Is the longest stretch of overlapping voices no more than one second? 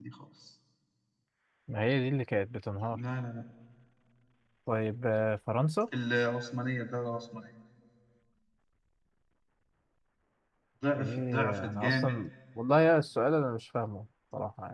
No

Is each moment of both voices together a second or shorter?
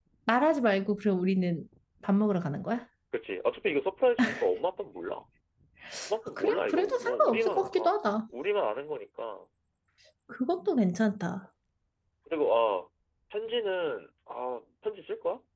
No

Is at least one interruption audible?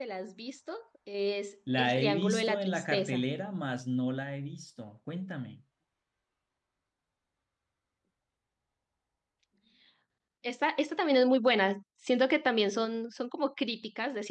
Yes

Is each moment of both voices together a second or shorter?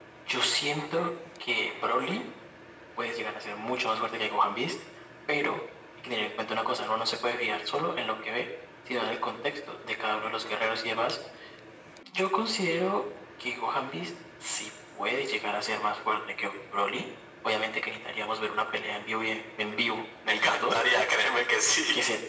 Yes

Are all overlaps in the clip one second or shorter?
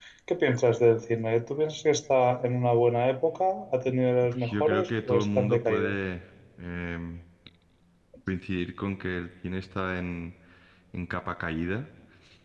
No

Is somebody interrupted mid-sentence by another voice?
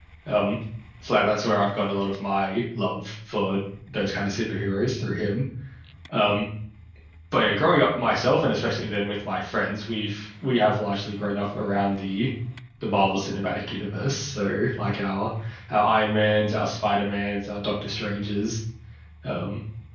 No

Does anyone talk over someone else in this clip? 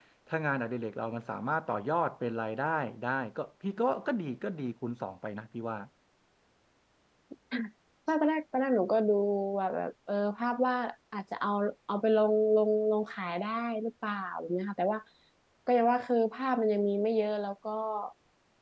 No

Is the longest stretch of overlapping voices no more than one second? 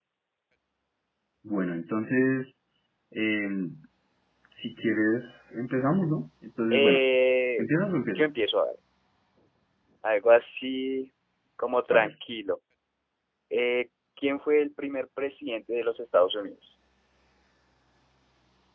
Yes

